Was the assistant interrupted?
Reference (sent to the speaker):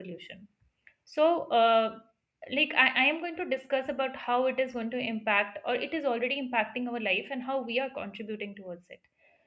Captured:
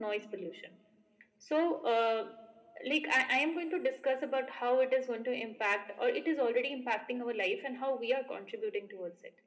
No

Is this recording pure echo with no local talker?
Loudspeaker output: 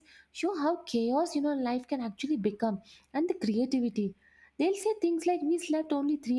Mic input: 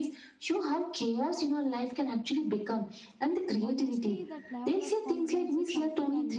No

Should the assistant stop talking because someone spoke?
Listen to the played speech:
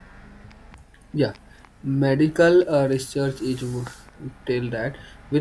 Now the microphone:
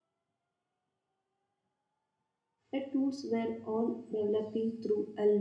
Yes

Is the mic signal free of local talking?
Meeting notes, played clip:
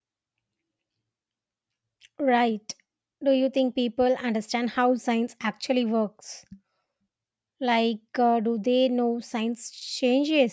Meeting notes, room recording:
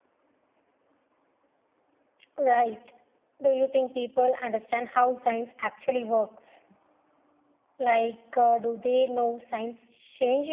Yes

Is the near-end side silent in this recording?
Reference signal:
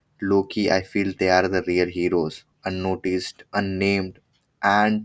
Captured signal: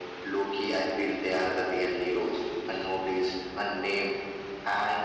Yes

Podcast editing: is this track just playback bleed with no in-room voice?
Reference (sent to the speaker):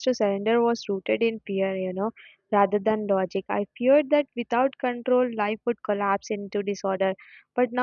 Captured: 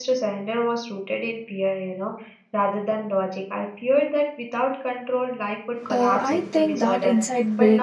No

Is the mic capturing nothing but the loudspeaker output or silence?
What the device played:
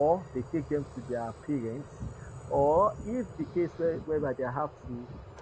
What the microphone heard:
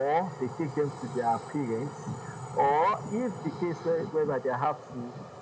Yes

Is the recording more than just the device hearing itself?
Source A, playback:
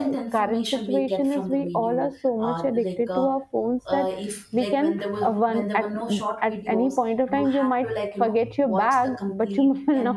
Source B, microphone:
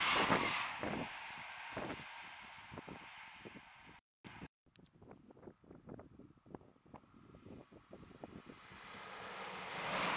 No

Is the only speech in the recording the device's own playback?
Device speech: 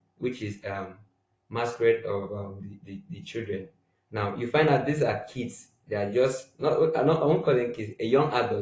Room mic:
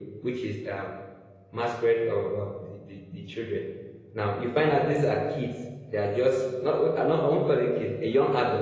Yes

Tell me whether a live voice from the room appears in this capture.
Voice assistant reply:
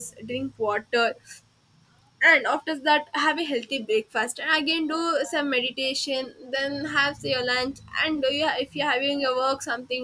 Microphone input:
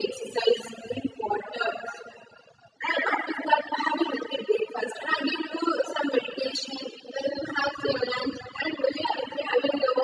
No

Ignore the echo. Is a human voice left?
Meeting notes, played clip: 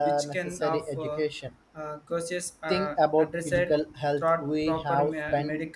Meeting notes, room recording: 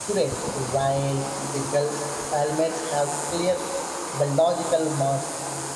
Yes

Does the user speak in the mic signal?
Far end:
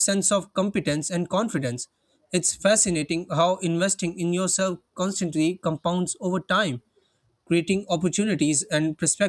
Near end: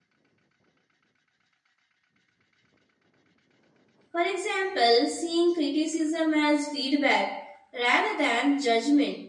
Yes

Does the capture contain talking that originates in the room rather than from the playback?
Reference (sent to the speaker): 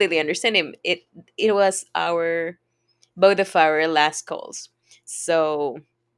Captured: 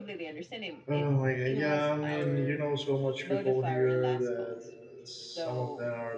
Yes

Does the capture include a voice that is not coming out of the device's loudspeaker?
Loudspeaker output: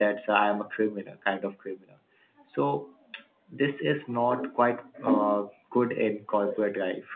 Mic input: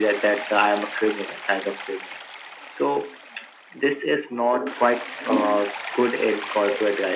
No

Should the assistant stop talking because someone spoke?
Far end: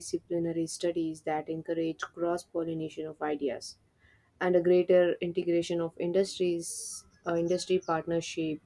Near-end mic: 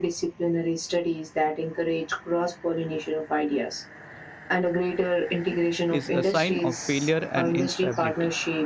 Yes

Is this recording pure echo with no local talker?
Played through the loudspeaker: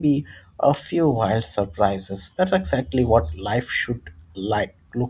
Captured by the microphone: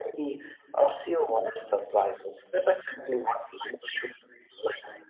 Yes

